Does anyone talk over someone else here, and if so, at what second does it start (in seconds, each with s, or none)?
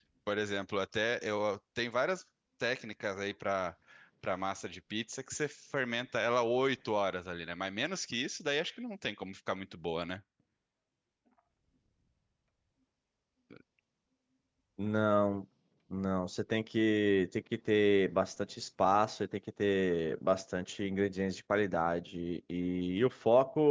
none